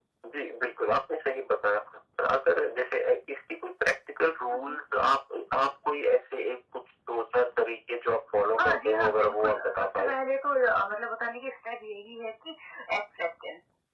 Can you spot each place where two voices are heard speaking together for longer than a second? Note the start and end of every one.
8.6-10.1

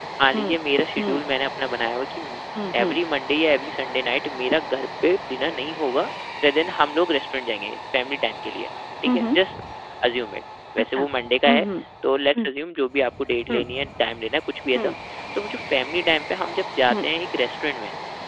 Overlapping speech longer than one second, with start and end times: none

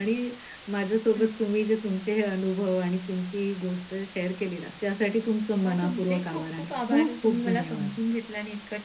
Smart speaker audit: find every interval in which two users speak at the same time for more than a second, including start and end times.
5.6-7.9

